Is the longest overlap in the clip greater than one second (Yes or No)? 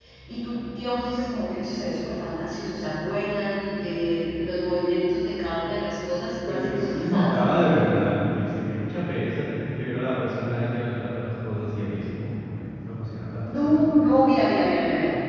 Yes